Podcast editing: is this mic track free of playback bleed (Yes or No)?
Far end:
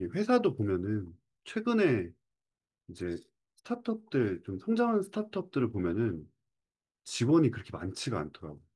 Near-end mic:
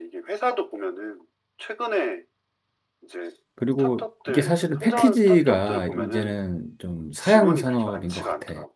No